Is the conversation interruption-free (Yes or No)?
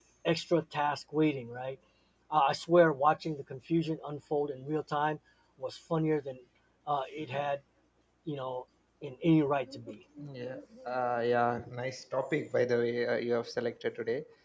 Yes